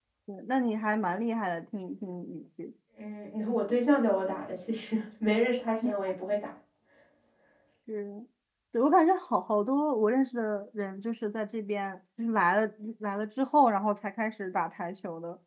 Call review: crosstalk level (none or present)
none